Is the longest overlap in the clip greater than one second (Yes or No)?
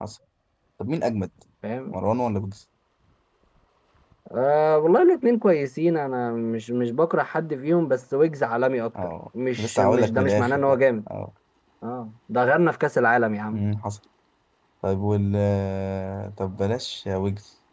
Yes